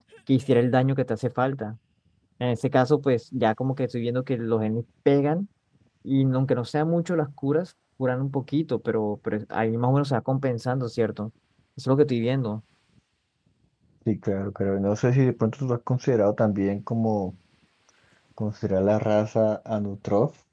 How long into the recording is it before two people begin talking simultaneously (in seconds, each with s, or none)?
none